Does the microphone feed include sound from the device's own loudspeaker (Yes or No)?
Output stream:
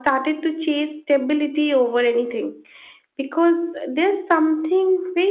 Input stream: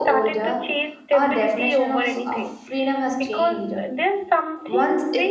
Yes